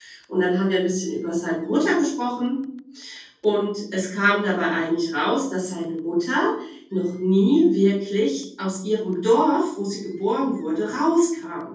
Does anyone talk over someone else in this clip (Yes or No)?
No